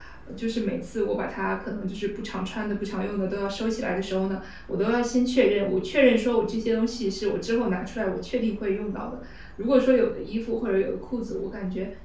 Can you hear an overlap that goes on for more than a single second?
No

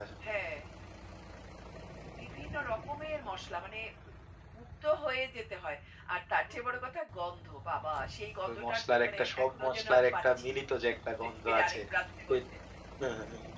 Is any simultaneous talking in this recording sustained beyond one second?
Yes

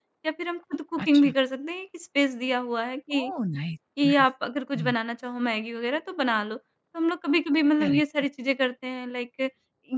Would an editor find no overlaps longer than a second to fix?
Yes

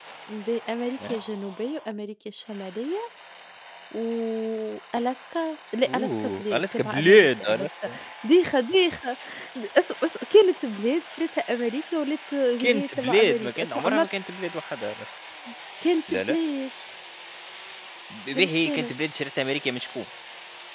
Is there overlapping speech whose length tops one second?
Yes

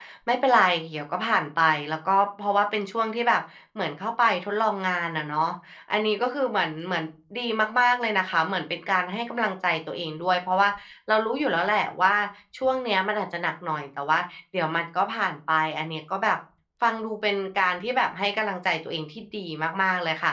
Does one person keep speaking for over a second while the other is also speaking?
No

